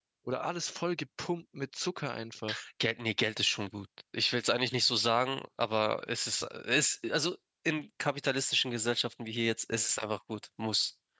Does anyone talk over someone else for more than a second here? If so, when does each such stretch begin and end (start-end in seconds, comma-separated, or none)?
none